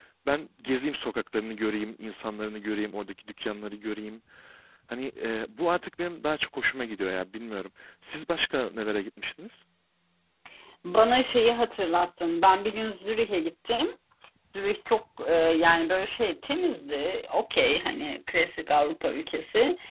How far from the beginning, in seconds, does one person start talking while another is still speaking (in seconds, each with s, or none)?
none